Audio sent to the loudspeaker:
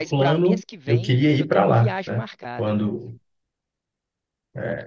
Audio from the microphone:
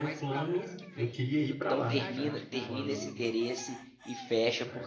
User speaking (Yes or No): Yes